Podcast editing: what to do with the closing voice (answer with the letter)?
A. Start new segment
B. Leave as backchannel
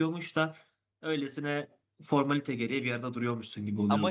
A